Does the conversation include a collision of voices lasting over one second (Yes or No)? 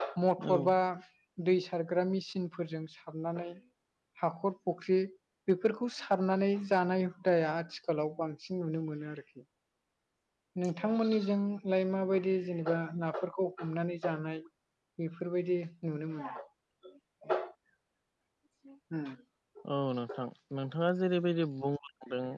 No